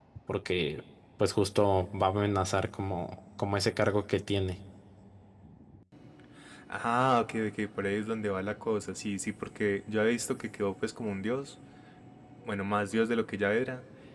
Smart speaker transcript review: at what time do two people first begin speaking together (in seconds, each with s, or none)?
none